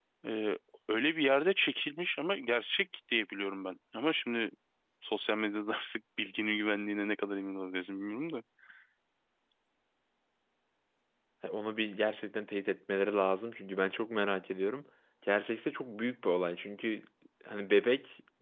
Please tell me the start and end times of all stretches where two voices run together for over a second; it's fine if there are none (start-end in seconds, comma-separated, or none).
none